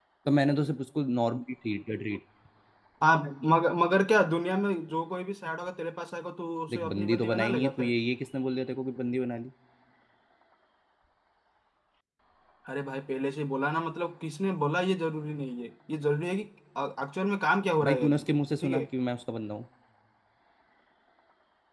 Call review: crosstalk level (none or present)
present